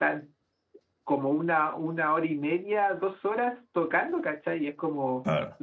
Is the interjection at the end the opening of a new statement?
No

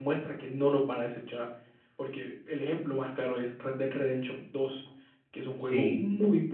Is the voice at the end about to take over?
No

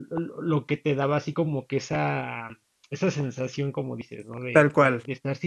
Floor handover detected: No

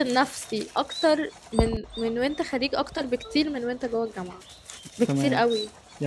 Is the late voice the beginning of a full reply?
Yes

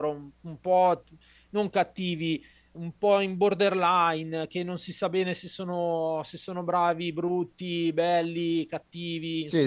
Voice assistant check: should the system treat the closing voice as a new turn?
Yes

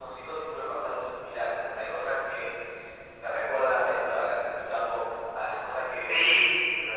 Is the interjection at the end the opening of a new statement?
Yes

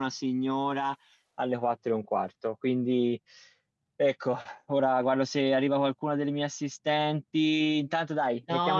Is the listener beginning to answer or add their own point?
Yes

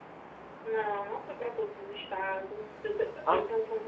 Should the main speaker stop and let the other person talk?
Yes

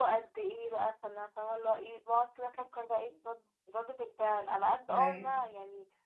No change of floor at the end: Yes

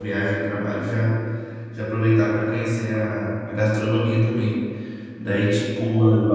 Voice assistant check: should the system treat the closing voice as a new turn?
No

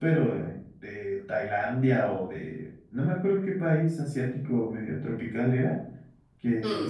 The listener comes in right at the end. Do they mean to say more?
No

